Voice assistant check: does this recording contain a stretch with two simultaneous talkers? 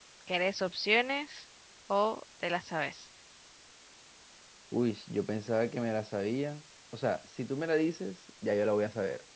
No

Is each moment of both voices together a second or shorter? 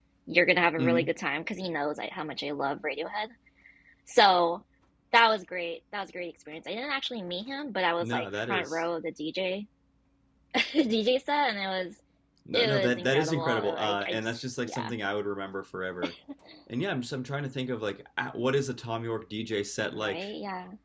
No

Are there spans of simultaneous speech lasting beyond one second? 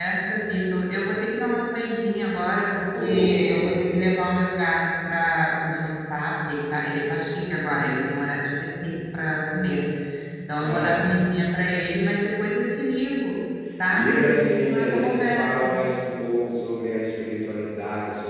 Yes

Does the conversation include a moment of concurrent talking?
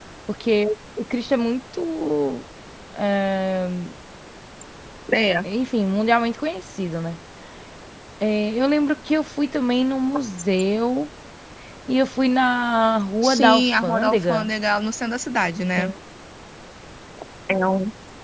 Yes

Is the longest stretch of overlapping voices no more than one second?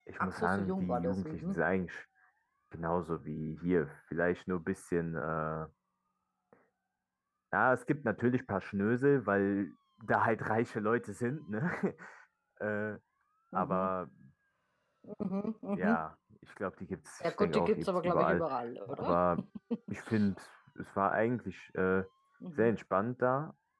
No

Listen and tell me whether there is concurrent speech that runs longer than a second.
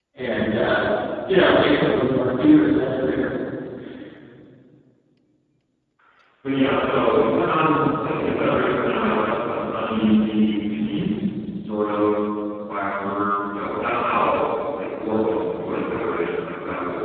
No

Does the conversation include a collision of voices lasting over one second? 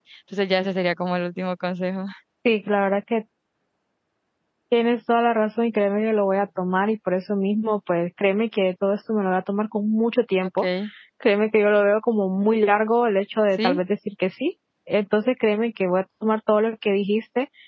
No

